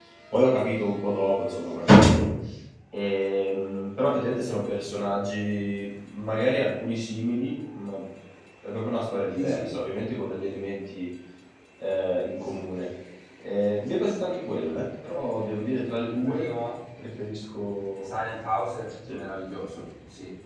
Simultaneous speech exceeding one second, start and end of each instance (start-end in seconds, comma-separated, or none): none